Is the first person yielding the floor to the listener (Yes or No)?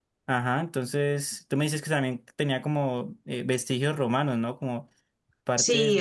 Yes